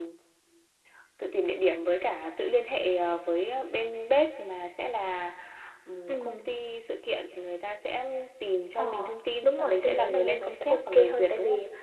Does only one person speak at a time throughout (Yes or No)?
No